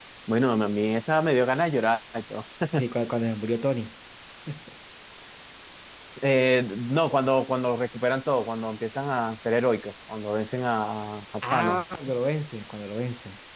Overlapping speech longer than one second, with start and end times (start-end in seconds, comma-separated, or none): none